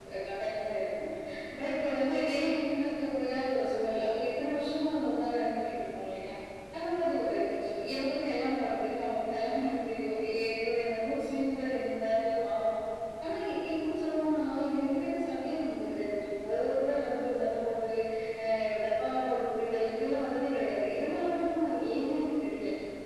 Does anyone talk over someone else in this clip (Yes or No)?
No